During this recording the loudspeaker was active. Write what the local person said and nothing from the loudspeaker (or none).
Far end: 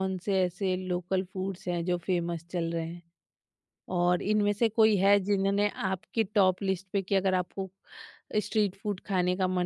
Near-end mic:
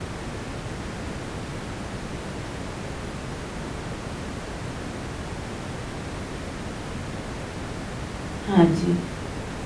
हाँ जी